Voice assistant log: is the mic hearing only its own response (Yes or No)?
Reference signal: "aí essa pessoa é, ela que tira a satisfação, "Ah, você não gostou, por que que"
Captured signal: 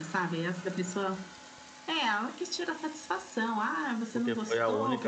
No